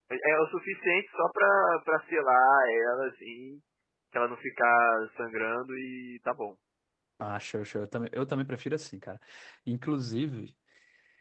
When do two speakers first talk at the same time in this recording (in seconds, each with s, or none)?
none